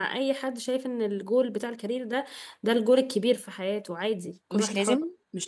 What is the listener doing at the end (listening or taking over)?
taking over